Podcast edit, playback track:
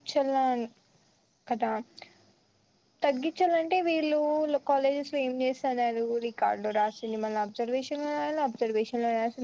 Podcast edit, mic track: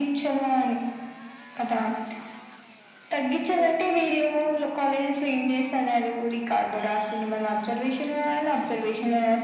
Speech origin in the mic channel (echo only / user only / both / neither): both